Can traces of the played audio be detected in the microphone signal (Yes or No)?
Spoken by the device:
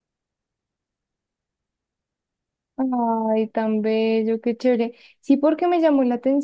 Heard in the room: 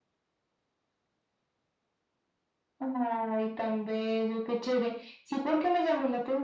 Yes